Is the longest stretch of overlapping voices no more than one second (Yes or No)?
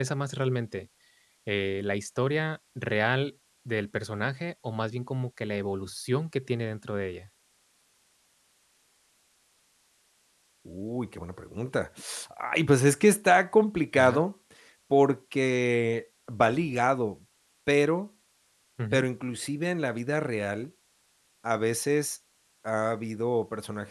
Yes